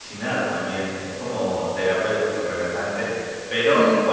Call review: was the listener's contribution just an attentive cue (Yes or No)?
Yes